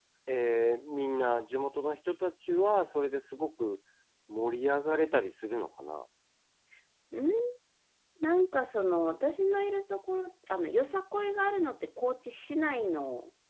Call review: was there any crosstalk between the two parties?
No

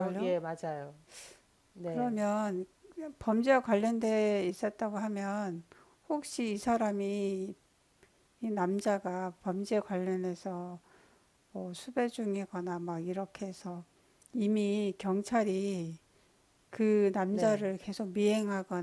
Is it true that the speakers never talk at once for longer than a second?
Yes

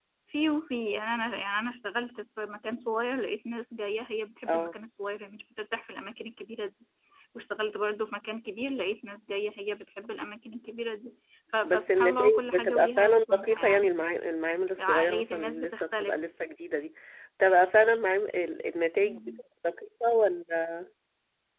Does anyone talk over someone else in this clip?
Yes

